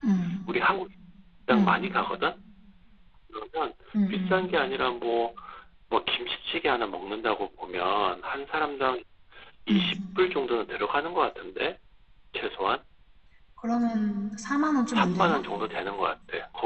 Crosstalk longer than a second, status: none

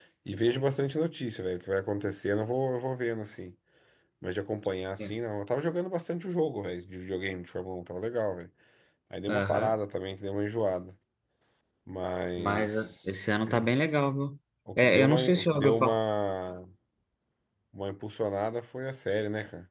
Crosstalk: present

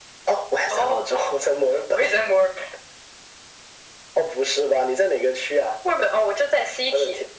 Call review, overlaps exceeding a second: none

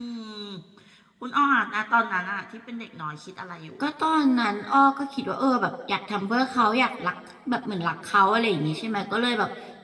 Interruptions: none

